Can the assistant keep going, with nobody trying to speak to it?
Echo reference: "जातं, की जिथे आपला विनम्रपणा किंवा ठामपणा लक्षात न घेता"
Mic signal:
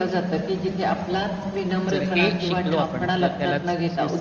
No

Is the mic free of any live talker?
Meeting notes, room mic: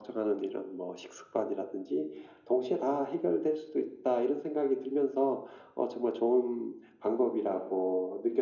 Yes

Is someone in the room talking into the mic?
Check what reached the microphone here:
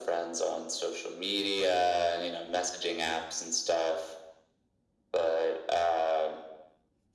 No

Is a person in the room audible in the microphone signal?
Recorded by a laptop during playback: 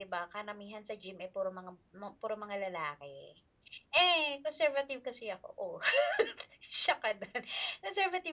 Yes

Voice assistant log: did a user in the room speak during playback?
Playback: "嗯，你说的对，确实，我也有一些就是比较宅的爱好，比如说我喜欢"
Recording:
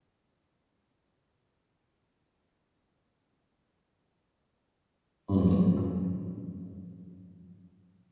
Yes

